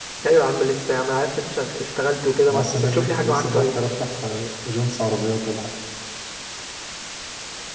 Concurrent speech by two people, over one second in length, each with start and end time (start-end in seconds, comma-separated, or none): 2.5-3.7